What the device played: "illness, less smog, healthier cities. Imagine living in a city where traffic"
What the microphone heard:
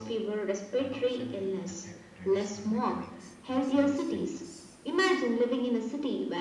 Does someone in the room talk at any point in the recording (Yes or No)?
Yes